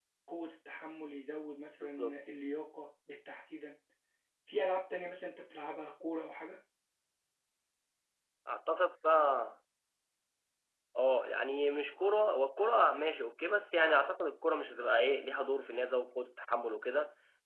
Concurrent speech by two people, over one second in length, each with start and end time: none

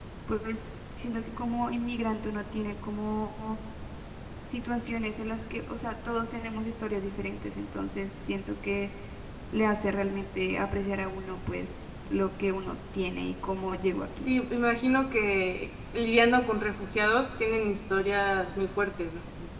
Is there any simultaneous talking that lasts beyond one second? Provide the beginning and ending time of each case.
none

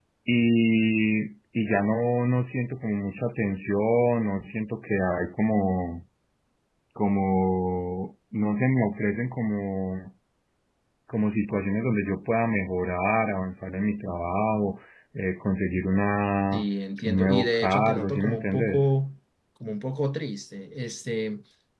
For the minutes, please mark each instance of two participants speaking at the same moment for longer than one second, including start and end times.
17.1-18.8

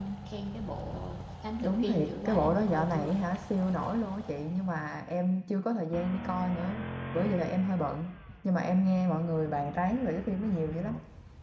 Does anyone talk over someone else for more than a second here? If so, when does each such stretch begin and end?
1.6-3.1

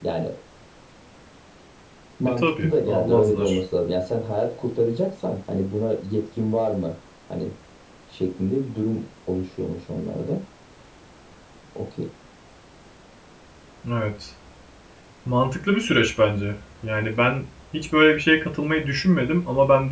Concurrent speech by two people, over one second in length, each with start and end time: 2.3-3.6

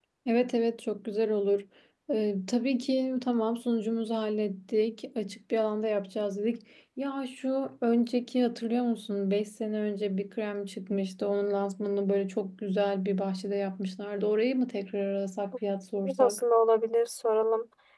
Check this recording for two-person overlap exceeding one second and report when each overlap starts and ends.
none

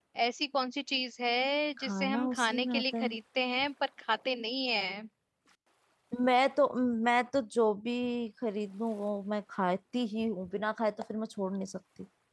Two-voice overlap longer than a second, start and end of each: 1.8-3.1

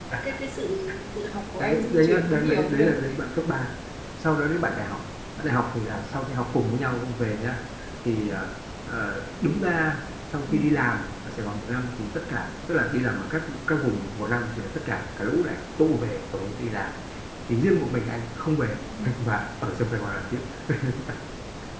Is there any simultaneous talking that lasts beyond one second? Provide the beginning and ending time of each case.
1.6-2.9

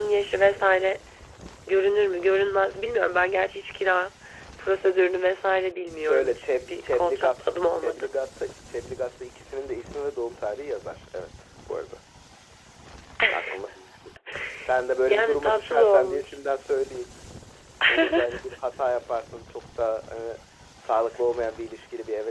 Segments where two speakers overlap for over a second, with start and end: 6.0-8.1, 15.1-16.4

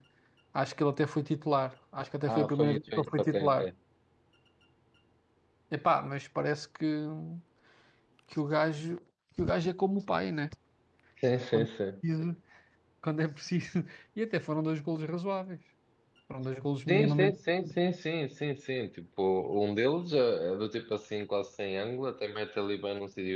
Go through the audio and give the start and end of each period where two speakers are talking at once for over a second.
2.3-3.7

